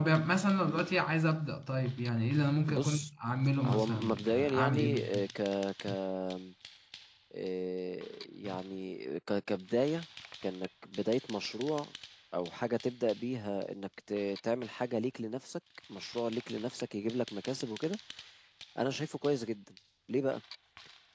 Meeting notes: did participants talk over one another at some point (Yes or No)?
Yes